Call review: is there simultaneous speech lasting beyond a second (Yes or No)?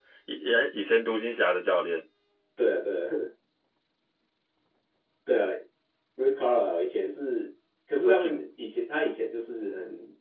No